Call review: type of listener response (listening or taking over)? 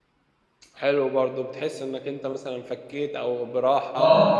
taking over